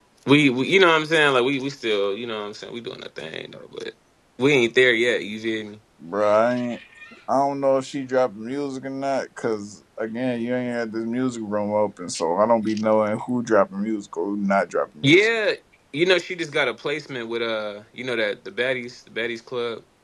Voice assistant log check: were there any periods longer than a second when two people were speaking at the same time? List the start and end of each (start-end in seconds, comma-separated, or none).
none